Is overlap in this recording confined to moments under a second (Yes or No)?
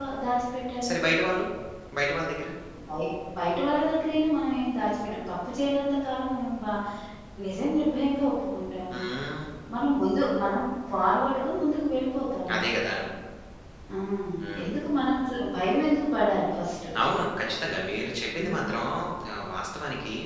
Yes